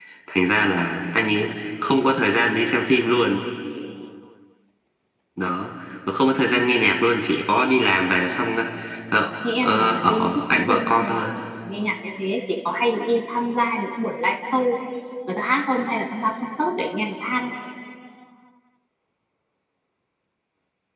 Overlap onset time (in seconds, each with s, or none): 9.6 s